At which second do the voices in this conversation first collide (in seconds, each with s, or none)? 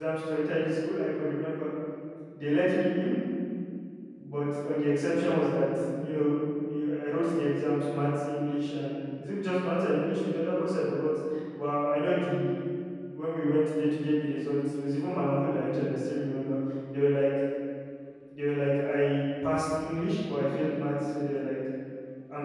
none